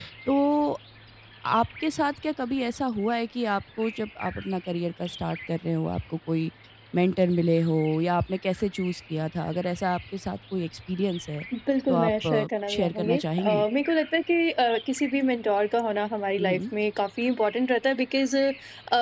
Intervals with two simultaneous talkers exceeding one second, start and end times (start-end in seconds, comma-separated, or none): 11.9-13.7